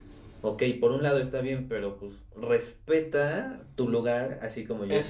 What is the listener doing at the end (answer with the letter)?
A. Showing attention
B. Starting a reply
B